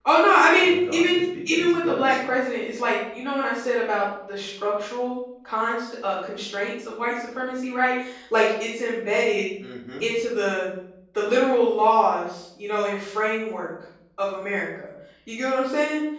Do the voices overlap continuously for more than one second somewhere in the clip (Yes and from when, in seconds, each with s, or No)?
Yes, from 0.6 s